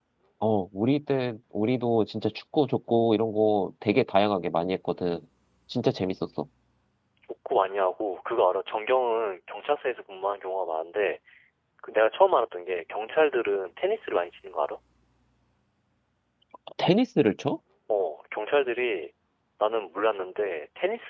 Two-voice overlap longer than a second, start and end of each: none

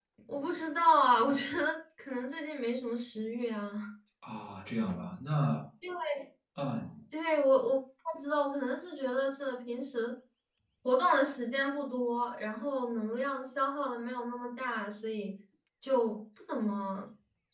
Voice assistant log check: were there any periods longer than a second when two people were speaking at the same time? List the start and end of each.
none

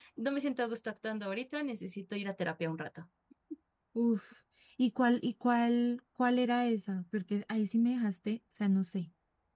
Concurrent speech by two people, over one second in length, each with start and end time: none

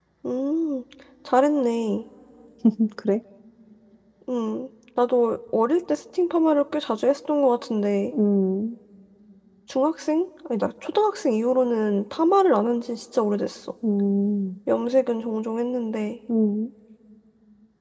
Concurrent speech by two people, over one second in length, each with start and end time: none

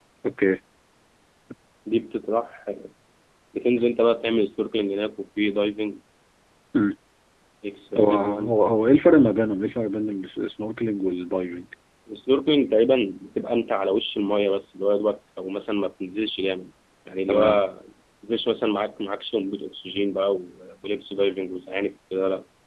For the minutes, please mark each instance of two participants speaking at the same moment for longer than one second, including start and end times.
none

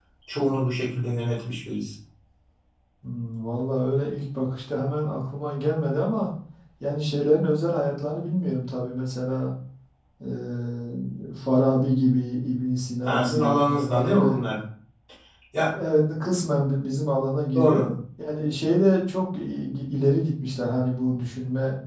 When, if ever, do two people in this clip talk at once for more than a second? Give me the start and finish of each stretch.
13.0-14.4

